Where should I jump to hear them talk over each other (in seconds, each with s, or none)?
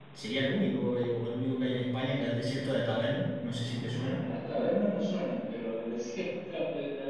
none